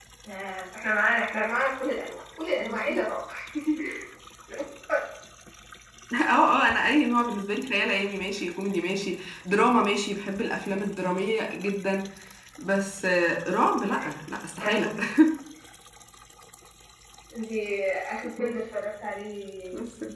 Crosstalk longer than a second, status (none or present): none